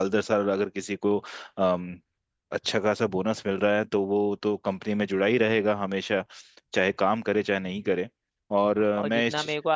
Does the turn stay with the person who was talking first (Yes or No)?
No